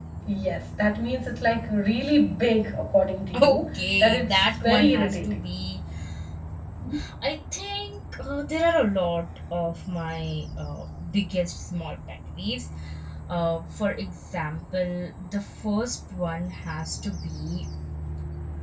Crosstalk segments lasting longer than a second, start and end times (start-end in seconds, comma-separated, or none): 3.4-5.4